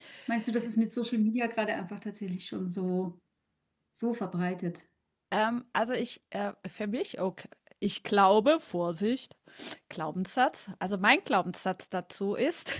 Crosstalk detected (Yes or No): No